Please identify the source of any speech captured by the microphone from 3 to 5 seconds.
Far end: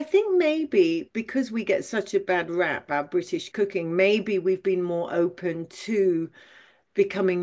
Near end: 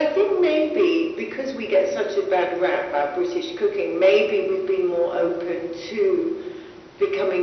echo only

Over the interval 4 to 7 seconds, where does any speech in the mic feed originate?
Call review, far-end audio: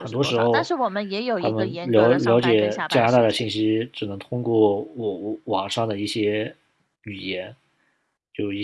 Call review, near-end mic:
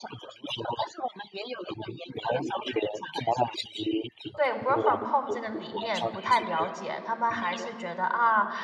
both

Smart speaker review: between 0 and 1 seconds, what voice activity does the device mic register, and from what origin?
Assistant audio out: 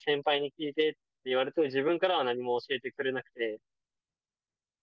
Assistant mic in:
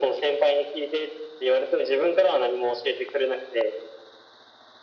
echo only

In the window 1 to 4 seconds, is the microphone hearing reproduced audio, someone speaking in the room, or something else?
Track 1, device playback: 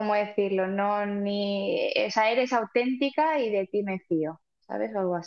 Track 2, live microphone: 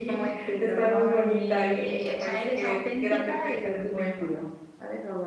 both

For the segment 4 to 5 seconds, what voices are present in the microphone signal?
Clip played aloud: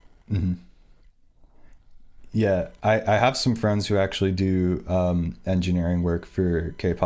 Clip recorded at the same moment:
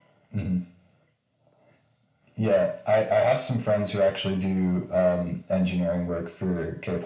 echo only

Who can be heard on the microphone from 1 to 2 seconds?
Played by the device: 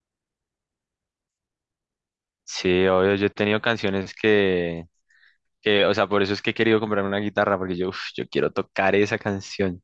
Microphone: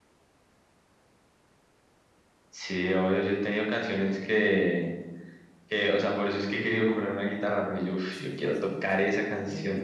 neither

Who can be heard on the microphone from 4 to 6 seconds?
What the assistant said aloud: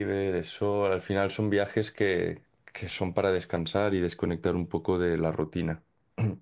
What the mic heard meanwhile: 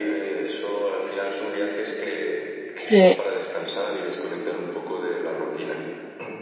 echo only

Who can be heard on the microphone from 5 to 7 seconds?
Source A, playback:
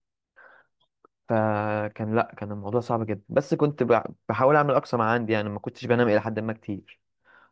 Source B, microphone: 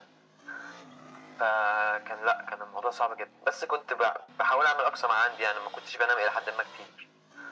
echo only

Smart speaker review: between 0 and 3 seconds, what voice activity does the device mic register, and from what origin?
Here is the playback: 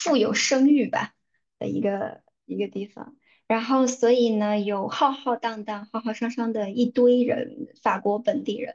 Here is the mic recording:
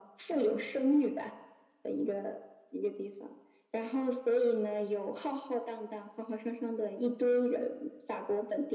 echo only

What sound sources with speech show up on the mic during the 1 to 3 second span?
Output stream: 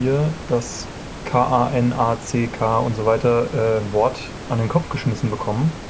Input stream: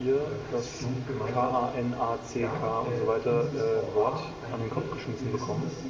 both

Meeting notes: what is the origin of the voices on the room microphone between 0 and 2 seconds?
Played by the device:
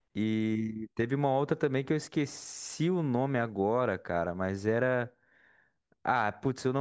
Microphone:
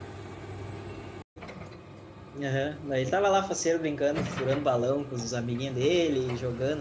neither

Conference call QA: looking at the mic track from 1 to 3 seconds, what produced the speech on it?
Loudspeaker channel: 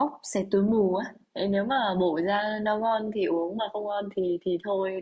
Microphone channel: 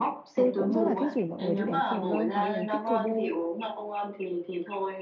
both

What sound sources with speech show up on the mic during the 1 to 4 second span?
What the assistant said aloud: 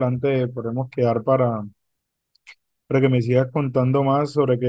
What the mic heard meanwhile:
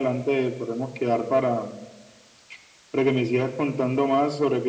echo only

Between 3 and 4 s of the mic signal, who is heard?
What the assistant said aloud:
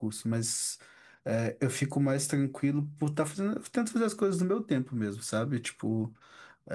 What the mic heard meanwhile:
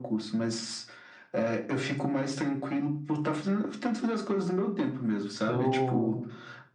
echo only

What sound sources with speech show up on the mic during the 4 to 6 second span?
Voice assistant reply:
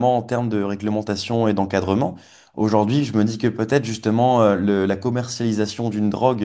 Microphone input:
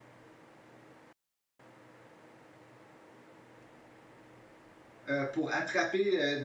user only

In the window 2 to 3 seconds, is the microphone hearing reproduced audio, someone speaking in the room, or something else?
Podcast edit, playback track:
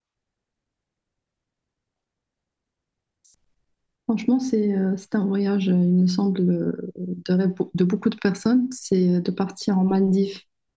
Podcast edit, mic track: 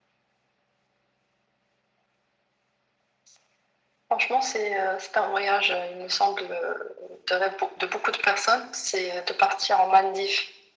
neither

